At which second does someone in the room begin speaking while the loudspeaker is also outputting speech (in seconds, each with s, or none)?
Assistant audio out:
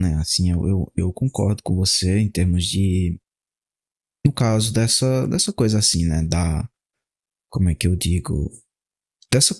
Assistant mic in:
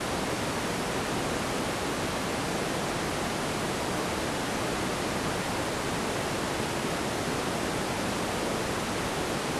none